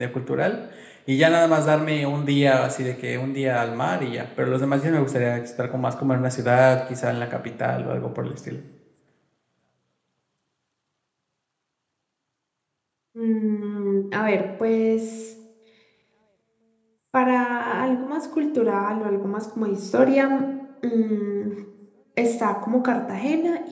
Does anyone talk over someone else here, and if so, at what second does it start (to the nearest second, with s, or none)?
none